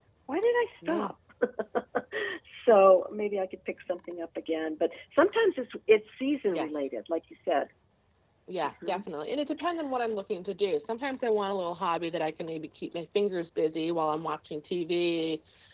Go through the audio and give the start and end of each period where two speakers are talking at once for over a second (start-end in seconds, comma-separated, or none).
none